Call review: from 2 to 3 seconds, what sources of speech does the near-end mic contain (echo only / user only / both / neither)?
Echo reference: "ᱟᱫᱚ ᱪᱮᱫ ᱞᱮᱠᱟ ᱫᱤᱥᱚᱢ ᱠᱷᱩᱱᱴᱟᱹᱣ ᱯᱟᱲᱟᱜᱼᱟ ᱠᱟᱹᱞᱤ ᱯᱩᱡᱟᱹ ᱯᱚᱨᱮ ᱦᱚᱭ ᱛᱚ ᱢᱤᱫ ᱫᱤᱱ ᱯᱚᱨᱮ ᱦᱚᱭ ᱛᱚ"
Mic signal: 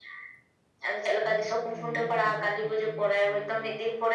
both